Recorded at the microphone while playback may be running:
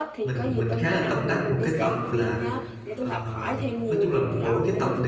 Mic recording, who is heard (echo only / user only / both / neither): both